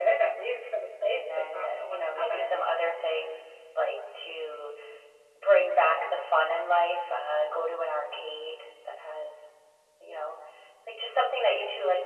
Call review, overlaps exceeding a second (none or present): present